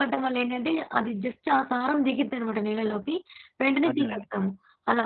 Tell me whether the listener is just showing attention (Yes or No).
Yes